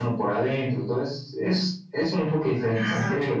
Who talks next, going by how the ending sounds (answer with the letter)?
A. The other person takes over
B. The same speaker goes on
A